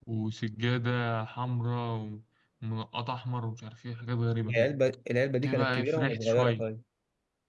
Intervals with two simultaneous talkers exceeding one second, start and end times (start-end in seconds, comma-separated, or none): 5.4-6.7